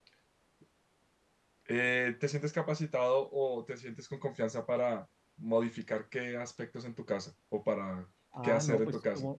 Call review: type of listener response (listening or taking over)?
taking over